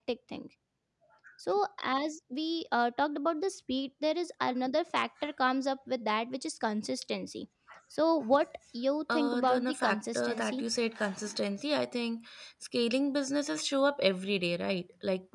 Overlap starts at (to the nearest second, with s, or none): 9 s